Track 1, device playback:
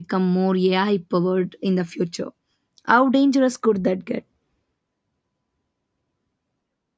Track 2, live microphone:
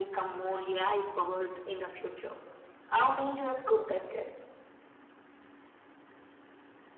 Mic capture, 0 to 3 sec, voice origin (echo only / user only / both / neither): echo only